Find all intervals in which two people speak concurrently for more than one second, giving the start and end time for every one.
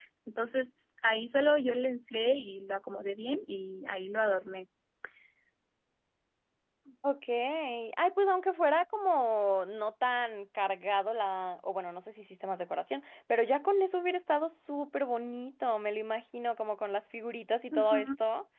none

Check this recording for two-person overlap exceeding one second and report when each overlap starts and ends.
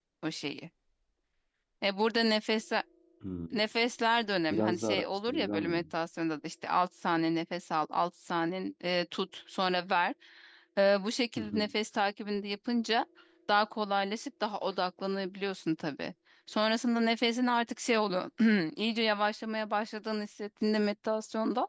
4.5-5.8

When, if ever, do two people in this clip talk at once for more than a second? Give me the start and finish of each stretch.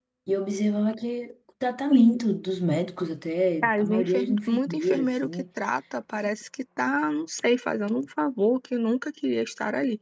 3.6-5.4

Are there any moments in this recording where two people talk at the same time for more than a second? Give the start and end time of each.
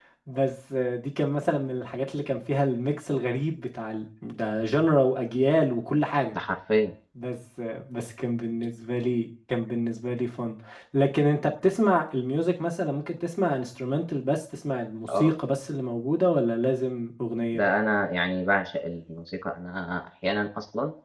none

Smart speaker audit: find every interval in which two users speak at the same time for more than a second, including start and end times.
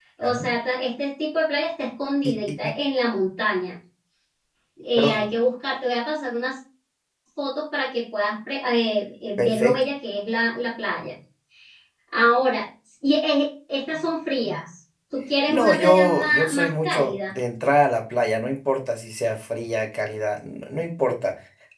15.5-17.4

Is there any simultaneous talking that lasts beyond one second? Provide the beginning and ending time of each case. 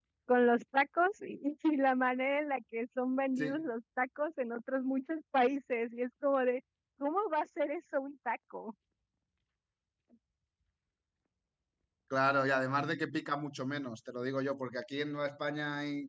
none

